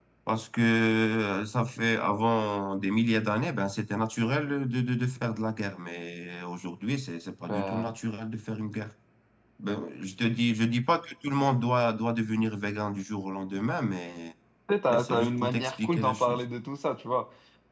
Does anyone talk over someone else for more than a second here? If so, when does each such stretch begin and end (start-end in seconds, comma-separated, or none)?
14.9-16.4